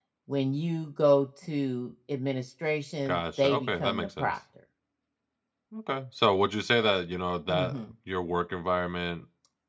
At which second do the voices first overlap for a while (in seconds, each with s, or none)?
3.0 s